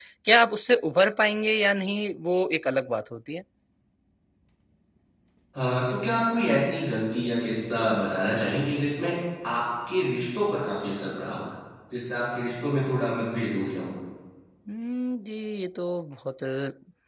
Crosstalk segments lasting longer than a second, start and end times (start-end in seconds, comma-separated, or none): none